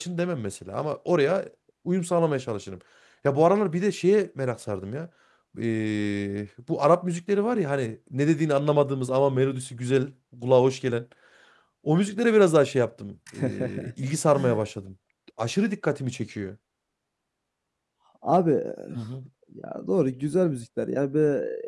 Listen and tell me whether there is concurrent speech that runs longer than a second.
No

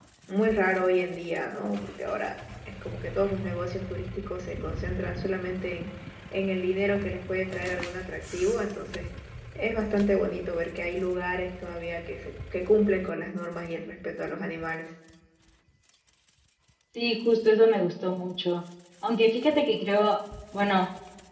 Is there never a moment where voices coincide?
Yes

